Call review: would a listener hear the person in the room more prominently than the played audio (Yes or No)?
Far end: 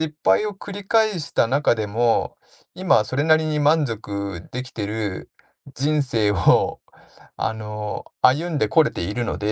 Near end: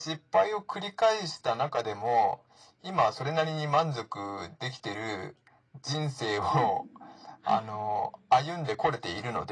No